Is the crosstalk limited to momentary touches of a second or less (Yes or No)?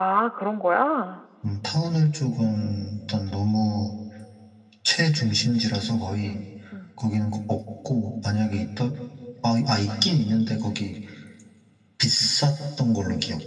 Yes